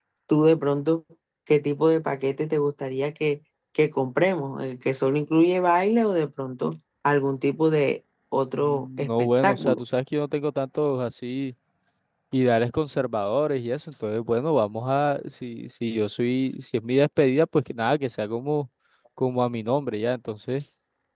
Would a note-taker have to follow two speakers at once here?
Yes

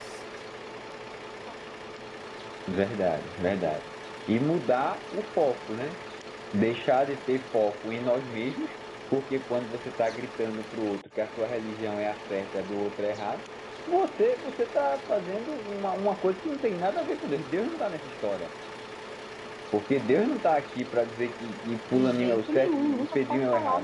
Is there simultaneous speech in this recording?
Yes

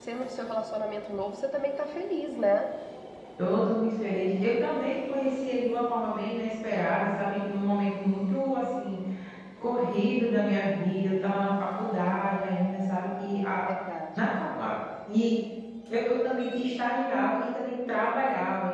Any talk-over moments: No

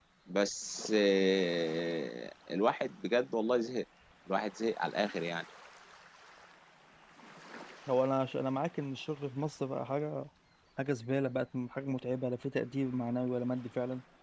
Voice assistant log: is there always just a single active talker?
Yes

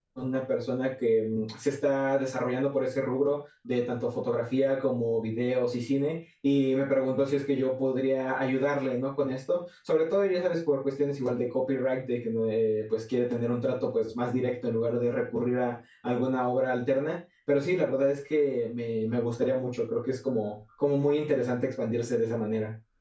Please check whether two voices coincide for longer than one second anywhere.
No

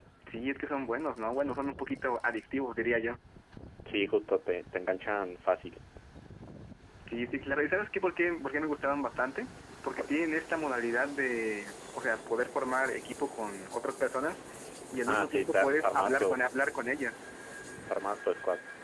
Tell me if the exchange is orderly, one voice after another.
No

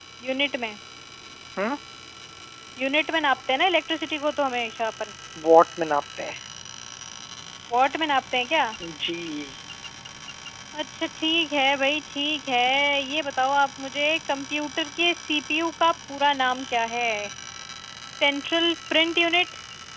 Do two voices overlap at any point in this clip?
No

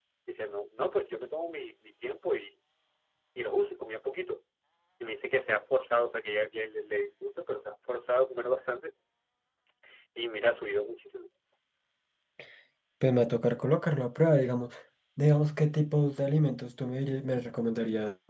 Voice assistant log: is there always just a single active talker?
Yes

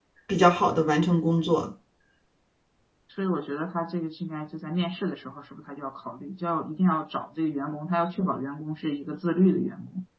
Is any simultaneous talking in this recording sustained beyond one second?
No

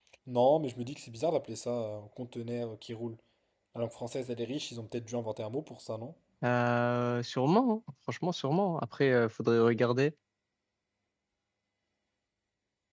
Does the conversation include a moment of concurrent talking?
No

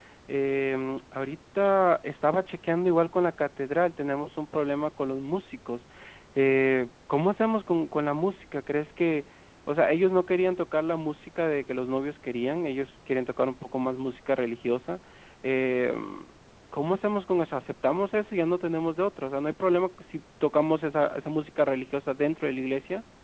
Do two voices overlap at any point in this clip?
No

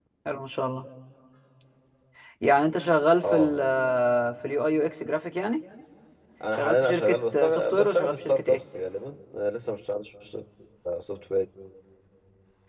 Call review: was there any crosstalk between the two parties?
Yes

